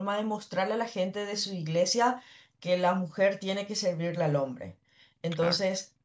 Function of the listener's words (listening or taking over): listening